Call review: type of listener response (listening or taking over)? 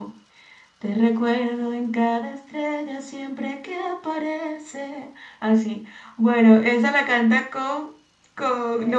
listening